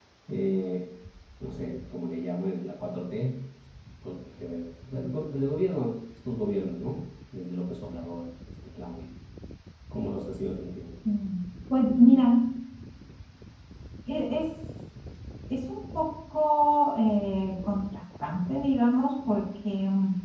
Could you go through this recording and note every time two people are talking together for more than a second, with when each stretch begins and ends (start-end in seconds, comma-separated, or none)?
none